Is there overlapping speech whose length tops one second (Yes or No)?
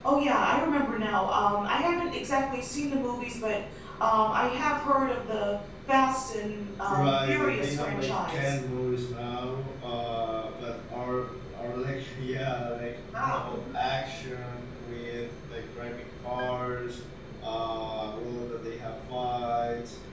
Yes